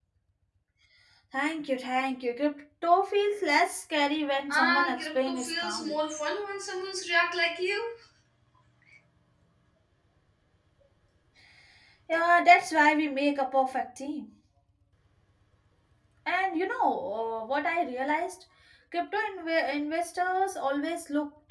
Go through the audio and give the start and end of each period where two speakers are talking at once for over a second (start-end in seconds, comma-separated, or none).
4.5-6.0